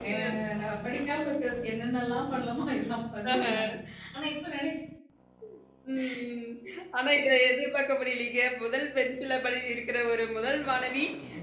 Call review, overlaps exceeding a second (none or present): none